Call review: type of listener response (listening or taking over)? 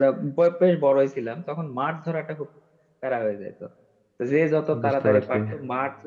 listening